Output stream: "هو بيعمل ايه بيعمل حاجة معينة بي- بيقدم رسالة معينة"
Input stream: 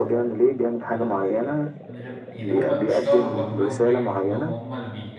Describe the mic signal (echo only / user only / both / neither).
both